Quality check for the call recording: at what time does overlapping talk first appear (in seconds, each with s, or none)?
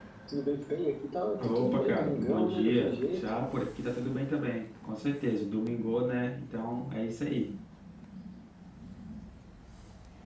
1.4 s